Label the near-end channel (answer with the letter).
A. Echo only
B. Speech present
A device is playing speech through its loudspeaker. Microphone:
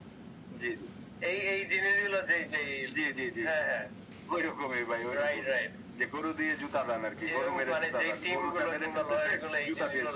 A